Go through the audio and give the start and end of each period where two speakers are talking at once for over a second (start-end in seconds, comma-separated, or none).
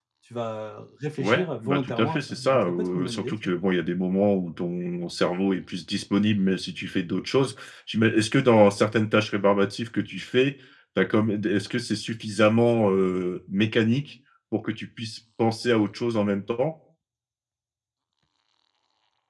1.2-3.5